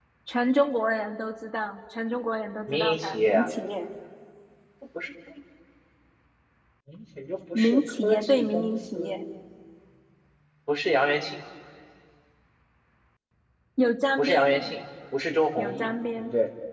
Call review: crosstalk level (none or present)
present